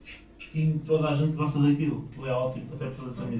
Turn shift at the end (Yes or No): Yes